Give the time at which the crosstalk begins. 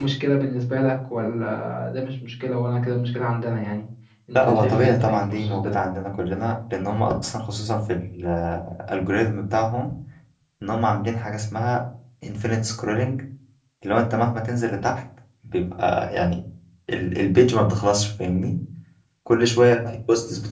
4.3 s

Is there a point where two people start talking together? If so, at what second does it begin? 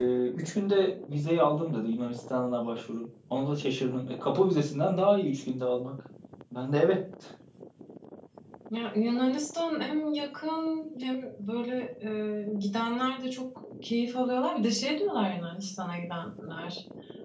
none

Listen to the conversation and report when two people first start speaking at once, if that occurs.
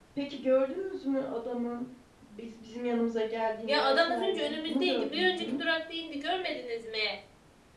3.7 s

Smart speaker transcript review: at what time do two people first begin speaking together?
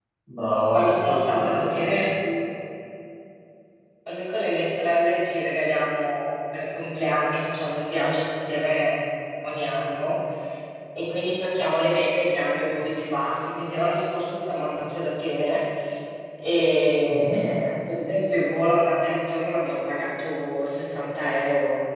0.7 s

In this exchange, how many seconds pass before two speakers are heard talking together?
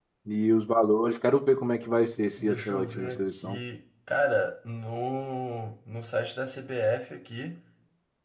2.4 s

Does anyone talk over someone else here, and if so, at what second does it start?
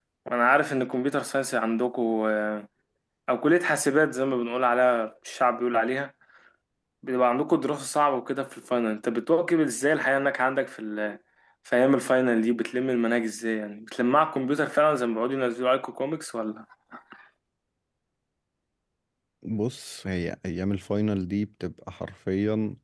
none

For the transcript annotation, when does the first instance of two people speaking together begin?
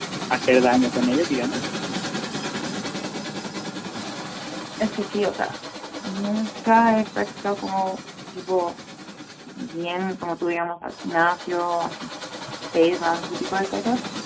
none

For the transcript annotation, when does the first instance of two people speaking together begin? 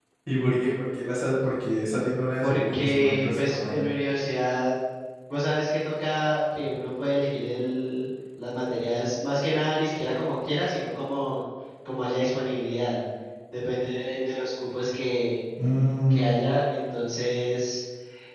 2.4 s

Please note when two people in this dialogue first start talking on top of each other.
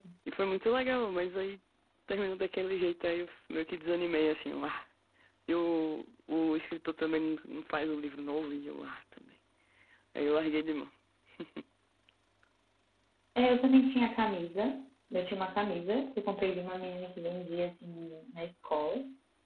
none

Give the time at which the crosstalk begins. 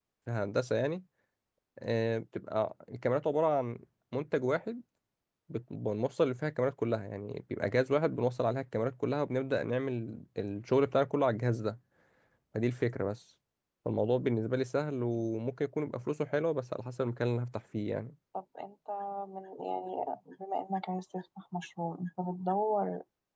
none

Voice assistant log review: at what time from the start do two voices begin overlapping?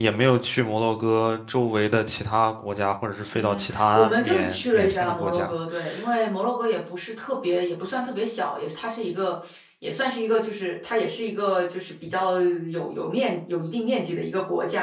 3.3 s

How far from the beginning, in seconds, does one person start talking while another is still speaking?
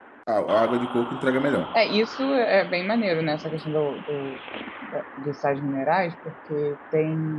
none

